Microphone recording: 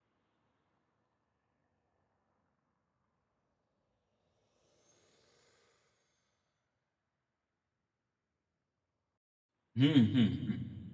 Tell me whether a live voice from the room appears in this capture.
Yes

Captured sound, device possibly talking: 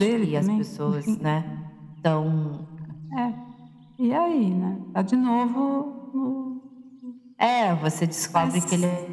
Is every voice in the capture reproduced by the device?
Yes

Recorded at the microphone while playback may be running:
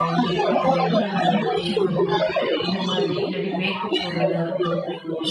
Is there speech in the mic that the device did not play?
Yes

